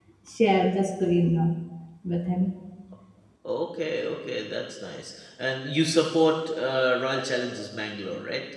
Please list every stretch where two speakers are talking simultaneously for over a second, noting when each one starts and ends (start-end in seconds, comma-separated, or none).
none